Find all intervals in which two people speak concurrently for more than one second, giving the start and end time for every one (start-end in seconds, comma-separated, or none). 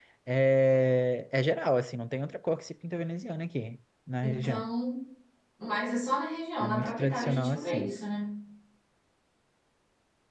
6.6-7.9